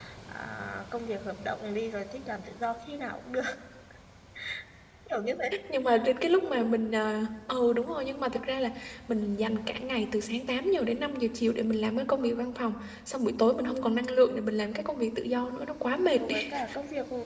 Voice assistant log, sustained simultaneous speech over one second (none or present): none